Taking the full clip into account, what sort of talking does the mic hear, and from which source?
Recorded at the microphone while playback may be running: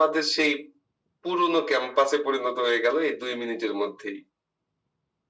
echo only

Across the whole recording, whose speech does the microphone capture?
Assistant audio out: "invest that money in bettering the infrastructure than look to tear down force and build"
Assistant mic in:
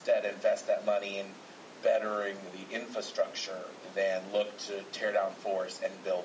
echo only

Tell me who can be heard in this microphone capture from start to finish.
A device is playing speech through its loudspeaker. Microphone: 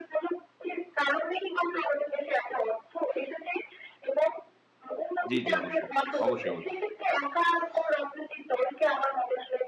both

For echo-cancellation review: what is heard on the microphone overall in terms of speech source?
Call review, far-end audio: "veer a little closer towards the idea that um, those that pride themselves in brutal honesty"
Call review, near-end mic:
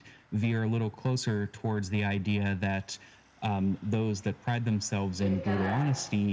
both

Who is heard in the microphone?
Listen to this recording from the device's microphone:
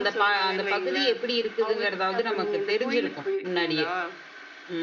both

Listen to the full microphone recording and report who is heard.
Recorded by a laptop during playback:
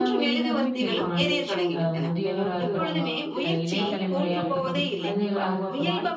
both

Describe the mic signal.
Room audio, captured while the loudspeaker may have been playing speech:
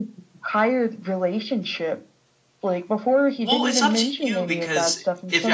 both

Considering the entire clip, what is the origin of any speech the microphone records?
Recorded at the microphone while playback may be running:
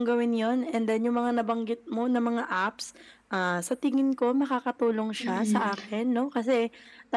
both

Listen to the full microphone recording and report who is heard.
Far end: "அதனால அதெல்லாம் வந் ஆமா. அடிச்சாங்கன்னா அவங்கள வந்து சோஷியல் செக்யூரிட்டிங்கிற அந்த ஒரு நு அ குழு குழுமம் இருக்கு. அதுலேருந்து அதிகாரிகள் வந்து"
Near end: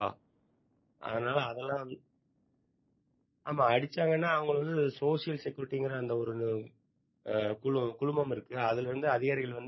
echo only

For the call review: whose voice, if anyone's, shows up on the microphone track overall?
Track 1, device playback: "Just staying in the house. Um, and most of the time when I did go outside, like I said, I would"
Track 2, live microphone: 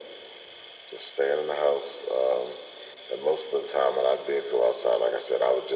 echo only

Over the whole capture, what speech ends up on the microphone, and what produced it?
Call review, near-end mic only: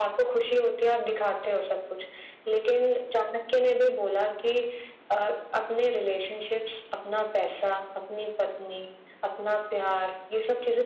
echo only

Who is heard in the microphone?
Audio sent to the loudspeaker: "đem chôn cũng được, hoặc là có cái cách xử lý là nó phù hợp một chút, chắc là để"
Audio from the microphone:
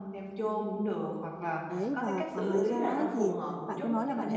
both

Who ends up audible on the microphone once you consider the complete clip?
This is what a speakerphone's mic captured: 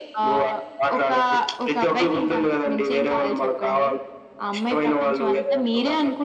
echo only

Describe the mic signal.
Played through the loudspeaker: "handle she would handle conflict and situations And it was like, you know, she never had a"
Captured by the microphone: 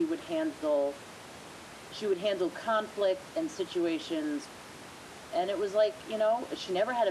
echo only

